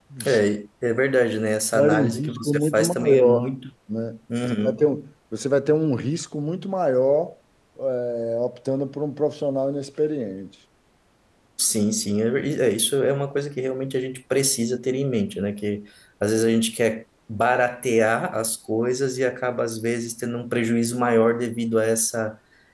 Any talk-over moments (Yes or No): Yes